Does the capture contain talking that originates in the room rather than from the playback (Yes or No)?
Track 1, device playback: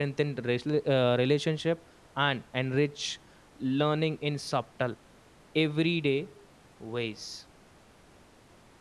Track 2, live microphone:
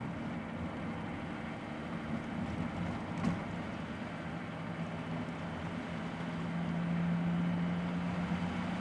No